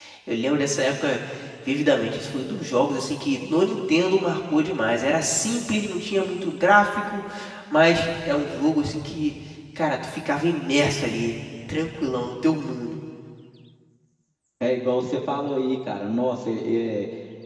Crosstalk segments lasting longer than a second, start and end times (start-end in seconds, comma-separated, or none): none